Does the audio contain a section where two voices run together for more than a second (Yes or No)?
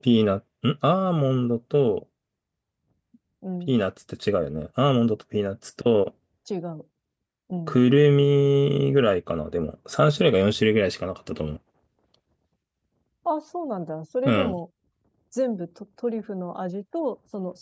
No